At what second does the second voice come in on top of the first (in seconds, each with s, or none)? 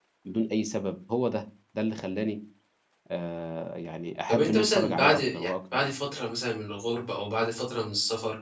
4.3 s